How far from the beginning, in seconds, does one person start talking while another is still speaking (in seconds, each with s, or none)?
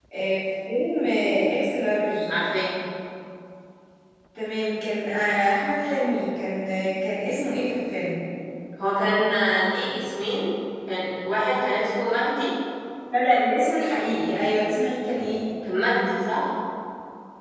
none